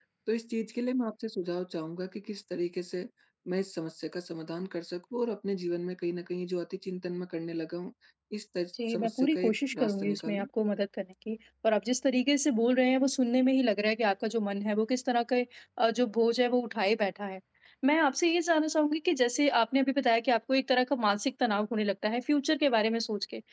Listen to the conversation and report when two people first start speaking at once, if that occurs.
9 s

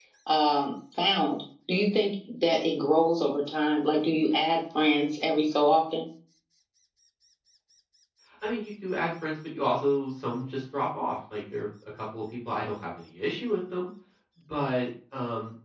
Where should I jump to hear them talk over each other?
none

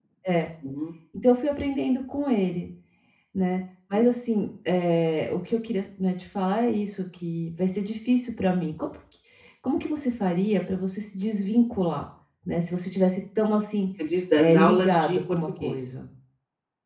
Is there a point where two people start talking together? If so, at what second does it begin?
14 s

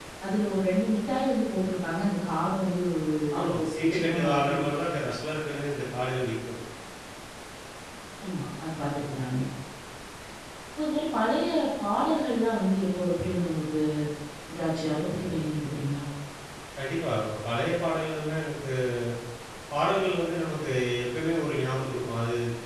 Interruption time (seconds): 3 s

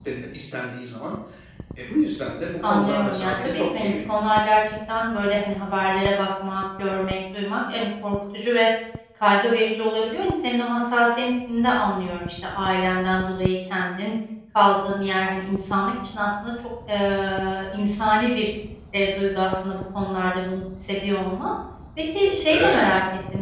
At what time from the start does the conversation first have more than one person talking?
3 s

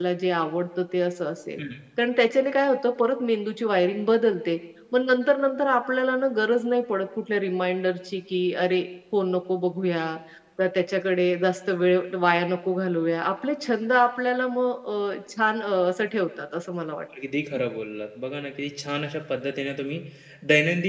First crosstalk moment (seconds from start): none

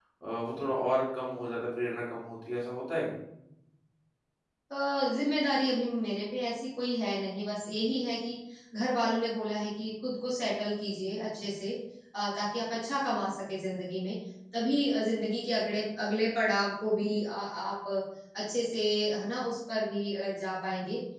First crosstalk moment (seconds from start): none

